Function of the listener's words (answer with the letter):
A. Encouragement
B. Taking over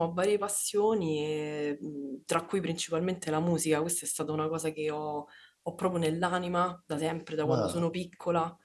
A